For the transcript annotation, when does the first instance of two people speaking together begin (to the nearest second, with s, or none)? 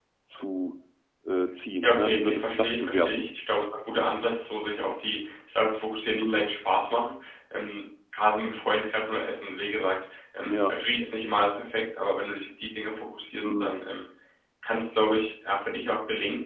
2 s